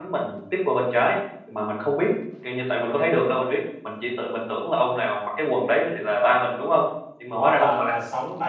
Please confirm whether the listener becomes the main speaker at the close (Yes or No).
Yes